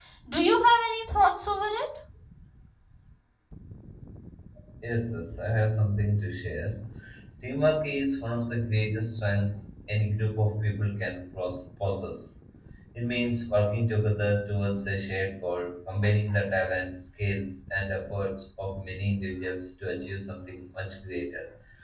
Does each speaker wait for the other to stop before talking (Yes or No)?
Yes